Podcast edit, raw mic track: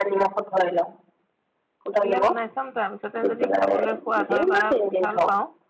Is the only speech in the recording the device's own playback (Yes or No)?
No